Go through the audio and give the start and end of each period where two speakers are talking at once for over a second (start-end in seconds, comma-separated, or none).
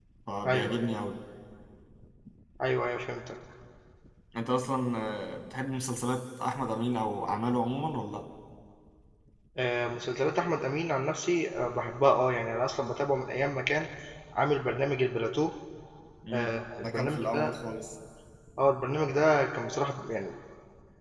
16.3-17.5